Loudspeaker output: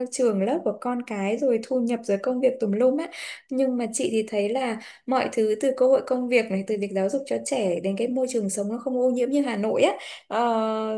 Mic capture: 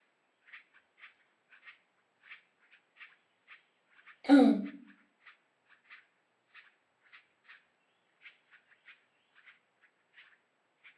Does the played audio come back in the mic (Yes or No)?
No